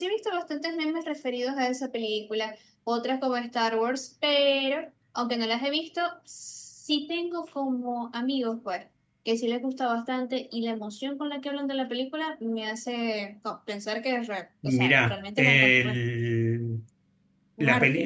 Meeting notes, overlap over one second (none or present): present